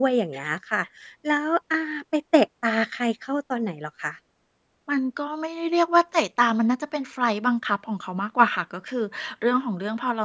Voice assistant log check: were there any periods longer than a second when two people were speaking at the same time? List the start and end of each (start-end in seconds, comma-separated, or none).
none